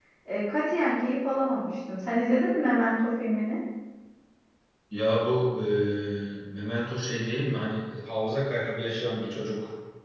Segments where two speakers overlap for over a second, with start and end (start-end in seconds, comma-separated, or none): none